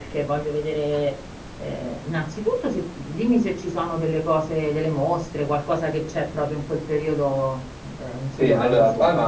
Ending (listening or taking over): taking over